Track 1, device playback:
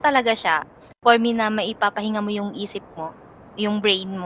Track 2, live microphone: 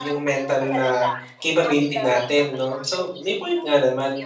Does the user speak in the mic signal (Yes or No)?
Yes